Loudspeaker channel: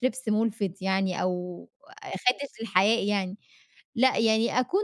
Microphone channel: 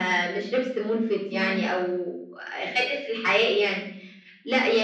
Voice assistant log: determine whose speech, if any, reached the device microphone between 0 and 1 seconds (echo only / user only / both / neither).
echo only